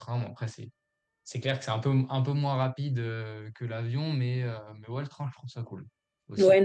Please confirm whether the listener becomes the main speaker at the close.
Yes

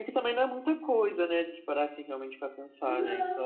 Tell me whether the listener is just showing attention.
No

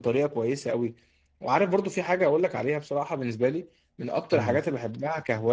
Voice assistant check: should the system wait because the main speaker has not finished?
Yes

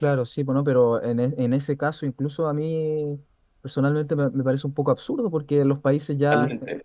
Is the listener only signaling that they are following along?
Yes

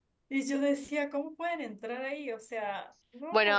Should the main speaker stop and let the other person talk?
Yes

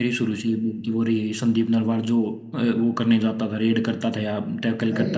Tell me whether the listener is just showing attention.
No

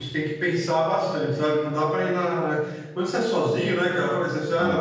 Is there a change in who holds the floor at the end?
No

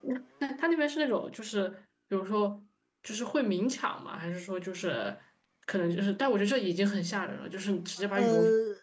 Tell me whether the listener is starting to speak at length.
Yes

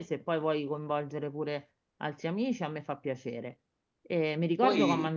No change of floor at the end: Yes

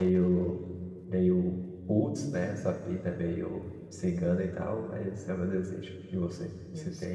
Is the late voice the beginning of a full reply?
Yes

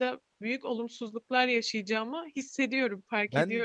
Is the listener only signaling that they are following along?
No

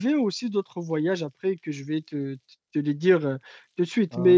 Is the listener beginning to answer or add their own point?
No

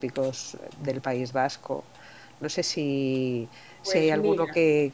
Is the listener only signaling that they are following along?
Yes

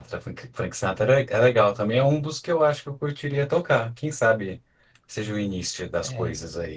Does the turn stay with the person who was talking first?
No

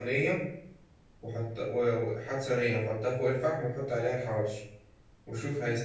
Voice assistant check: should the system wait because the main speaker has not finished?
Yes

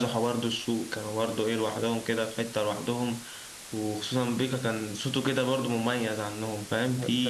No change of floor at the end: No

